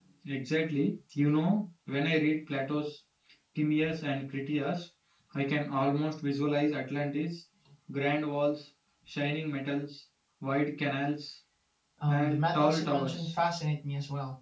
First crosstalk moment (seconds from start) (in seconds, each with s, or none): 12.1 s